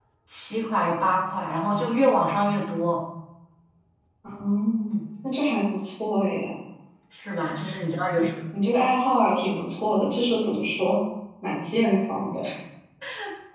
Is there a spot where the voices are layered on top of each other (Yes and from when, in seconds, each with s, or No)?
No